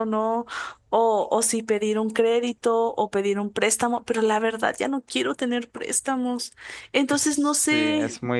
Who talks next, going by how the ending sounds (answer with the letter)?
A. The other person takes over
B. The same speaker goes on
A